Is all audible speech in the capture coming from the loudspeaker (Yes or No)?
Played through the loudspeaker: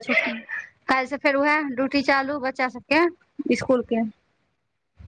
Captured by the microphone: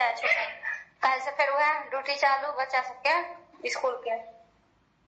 Yes